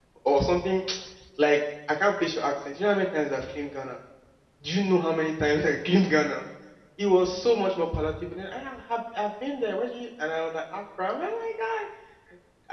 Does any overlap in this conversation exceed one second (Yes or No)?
No